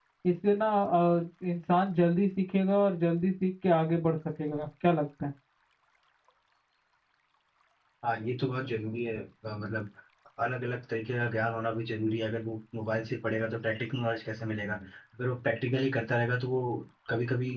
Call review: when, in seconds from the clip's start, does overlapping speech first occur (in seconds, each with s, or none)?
none